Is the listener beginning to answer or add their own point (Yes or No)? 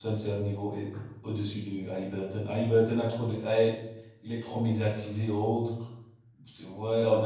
No